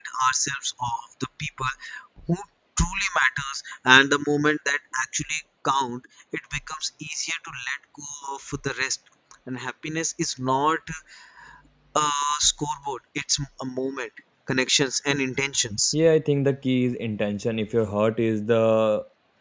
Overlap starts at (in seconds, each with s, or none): none